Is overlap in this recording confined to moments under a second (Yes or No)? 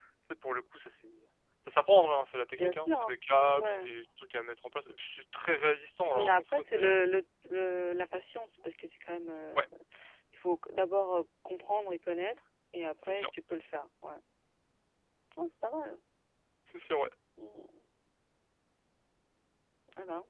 No